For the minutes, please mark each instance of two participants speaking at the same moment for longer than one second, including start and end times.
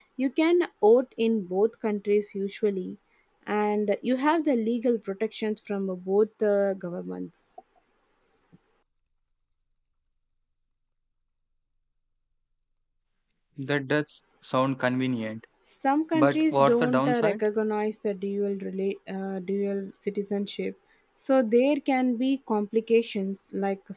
16.1-17.4

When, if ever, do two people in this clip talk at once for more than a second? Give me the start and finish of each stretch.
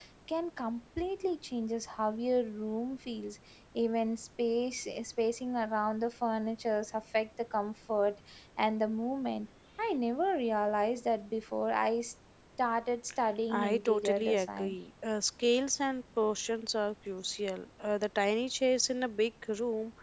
13.5-14.8

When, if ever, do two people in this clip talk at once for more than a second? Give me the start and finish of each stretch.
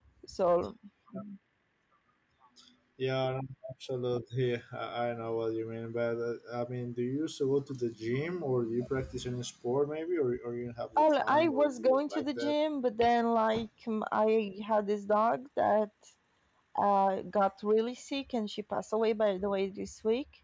11.0-12.5

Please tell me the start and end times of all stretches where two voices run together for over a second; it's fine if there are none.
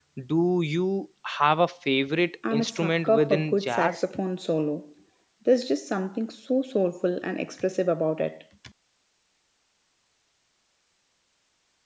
2.5-4.0

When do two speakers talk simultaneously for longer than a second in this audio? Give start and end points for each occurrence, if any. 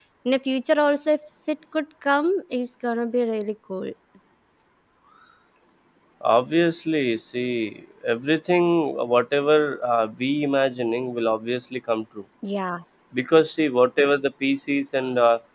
none

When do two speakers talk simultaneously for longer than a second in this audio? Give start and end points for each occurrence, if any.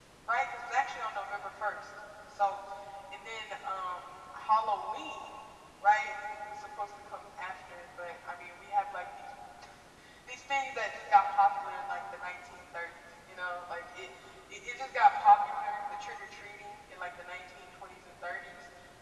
none

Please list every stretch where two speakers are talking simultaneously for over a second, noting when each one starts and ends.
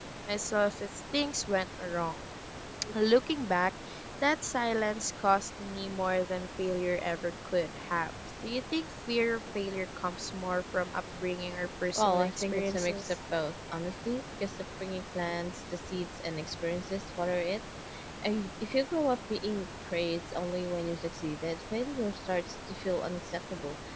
11.9-13.2

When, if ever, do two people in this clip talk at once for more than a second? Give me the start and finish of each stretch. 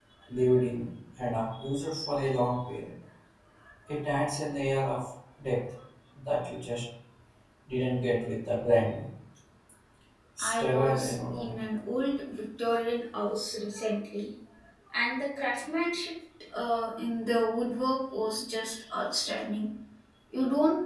10.4-11.6

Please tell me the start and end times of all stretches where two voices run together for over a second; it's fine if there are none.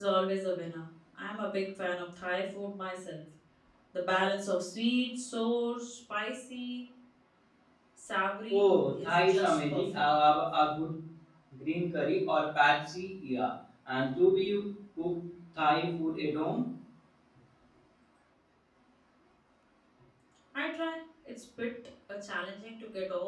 8.5-9.8

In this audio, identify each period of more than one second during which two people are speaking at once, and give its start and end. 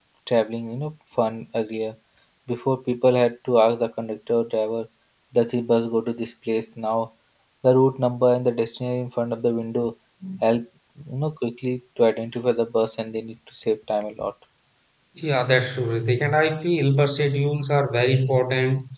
none

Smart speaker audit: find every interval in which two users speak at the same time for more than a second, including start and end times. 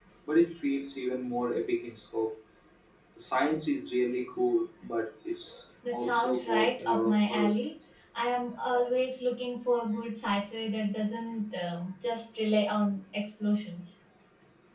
5.9-7.5

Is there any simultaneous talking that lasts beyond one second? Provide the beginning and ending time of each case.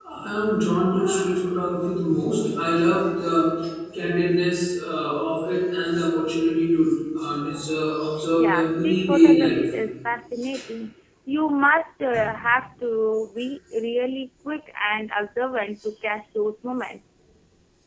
8.4-9.7

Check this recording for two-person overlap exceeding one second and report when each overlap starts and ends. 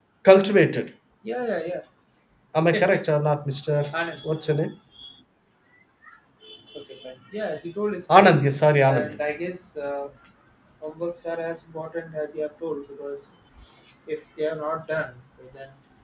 none

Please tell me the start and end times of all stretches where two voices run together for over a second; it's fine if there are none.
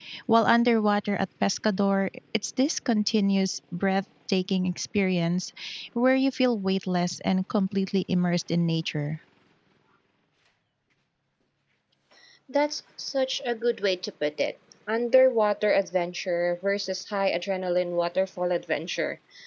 none

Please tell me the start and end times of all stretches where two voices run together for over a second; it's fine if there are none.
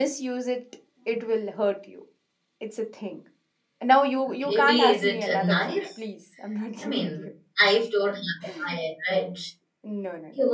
4.5-5.8

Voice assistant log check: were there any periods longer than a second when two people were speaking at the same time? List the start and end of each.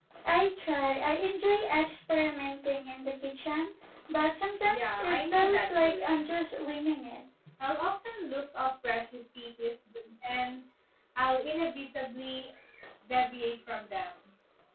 4.7-6.3

